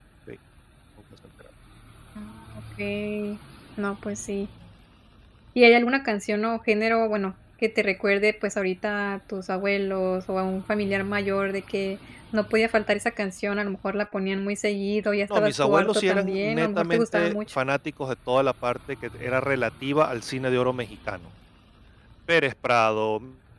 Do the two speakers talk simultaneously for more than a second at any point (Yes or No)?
Yes